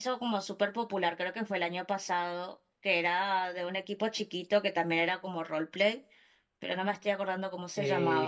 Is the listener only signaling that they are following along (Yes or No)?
No